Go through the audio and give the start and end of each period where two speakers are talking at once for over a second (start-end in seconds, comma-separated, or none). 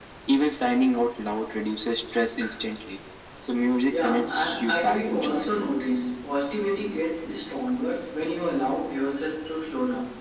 3.9-5.5